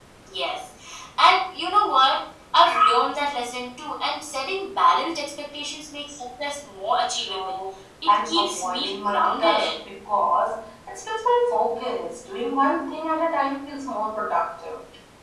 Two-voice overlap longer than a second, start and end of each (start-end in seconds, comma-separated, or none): 8.2-9.8